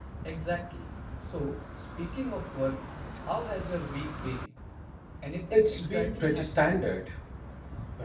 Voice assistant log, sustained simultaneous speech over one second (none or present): present